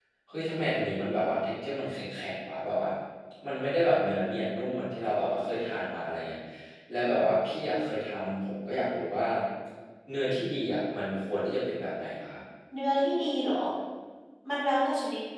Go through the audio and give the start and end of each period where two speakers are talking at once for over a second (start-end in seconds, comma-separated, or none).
none